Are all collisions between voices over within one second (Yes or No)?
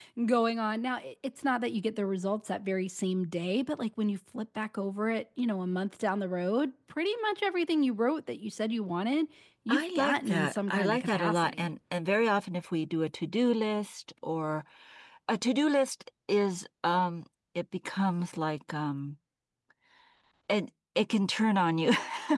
No